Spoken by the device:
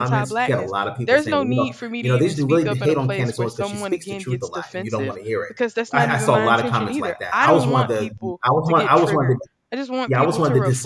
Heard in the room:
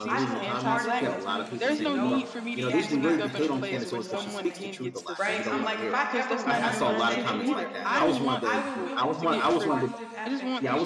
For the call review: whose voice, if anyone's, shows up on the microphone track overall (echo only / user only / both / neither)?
both